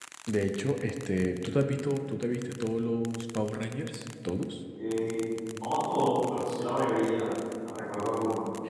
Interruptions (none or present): none